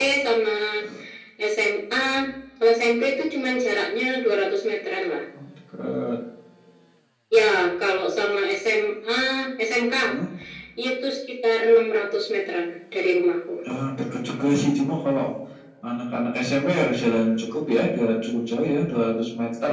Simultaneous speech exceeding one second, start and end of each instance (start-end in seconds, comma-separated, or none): none